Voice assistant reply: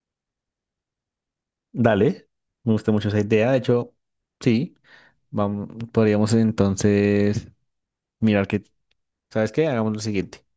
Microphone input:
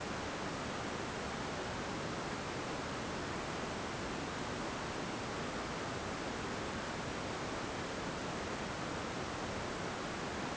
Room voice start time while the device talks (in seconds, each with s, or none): none